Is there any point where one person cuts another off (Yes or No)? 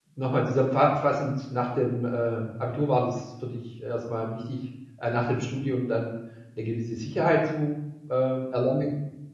No